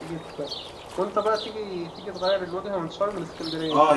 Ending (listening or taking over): taking over